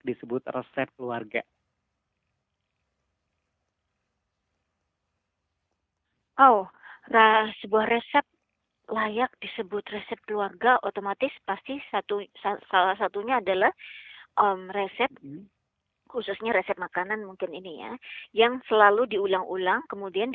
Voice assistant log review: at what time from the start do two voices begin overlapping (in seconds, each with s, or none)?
none